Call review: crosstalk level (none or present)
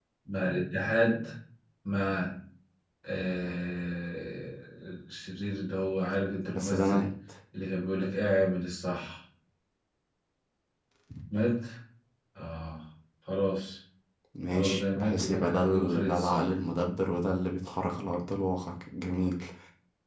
present